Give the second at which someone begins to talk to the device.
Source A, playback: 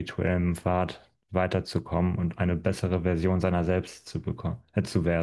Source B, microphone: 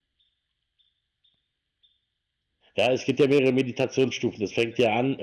2.8 s

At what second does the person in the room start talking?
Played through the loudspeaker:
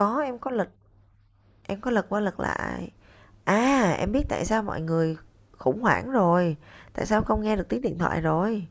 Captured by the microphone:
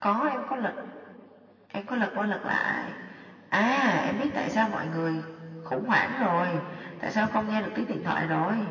none

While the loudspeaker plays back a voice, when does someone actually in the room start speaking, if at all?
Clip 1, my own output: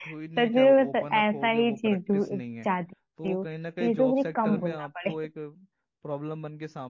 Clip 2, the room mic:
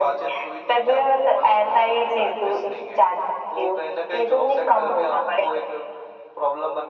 none

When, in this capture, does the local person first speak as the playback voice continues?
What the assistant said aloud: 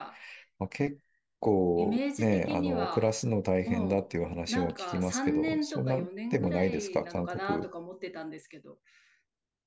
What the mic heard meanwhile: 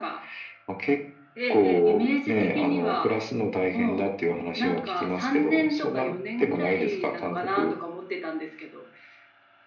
1.3 s

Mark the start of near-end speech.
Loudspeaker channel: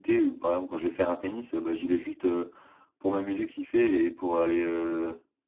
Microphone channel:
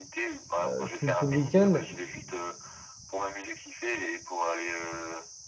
0.6 s

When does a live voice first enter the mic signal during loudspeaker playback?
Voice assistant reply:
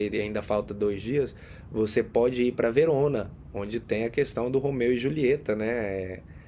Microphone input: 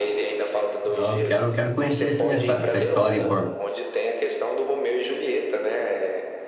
0.9 s

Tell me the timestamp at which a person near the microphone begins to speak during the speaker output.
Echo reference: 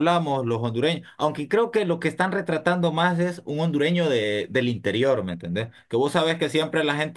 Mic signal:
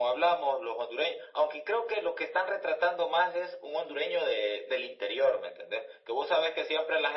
none

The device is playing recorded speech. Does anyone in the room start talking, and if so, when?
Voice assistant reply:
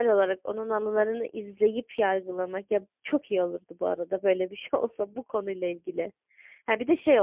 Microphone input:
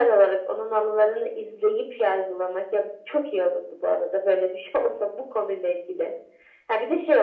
none

